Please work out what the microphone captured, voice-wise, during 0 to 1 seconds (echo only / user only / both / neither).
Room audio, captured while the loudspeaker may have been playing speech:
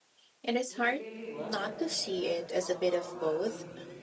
both